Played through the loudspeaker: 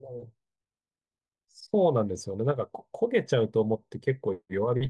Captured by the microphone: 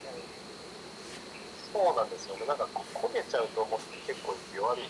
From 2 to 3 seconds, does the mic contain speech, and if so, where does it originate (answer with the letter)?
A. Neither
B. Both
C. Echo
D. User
C